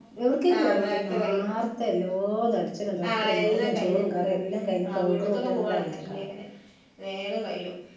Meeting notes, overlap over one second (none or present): present